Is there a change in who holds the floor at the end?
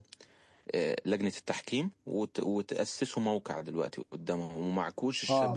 Yes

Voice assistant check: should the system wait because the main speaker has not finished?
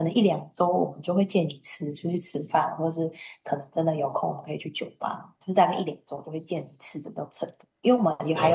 Yes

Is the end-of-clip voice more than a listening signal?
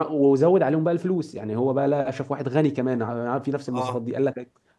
No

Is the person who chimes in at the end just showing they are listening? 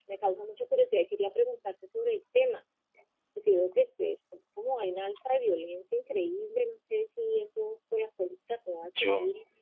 Yes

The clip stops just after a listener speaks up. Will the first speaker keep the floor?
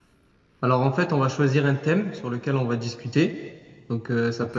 Yes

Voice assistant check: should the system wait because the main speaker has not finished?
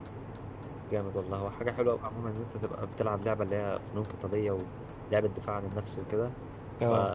Yes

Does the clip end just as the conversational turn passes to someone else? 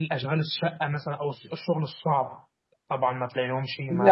Yes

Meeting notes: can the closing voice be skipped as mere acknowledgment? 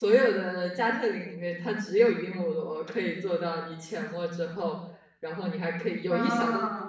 Yes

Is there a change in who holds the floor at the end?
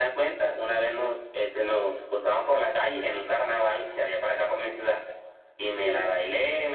No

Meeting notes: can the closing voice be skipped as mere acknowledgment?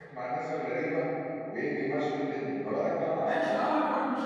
No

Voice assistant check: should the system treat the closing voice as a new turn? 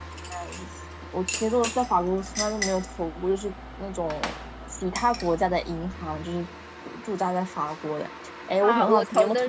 Yes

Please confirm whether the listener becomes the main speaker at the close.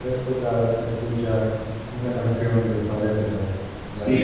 Yes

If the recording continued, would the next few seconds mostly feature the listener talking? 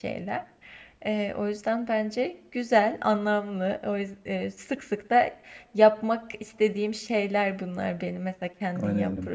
Yes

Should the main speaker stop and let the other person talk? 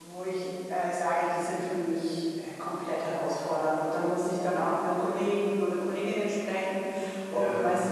No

